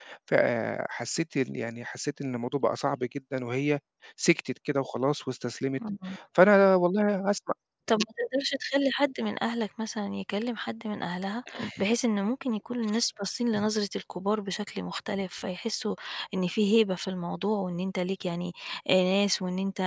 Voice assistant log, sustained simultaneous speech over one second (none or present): none